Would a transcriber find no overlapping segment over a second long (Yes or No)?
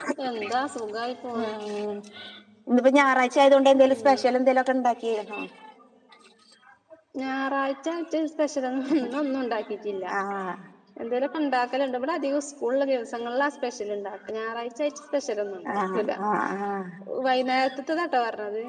Yes